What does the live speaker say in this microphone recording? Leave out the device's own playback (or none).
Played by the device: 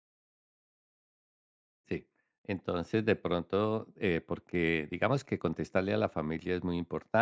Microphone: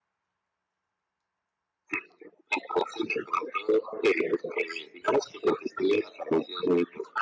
none